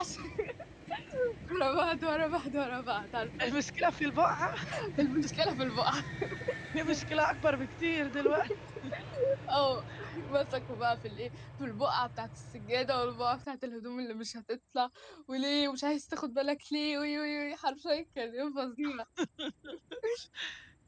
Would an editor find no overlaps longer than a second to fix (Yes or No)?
Yes